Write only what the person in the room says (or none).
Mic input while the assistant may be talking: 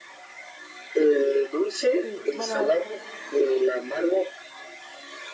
Sí, bueno,